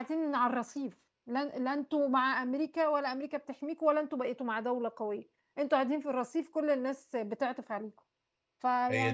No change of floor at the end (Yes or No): No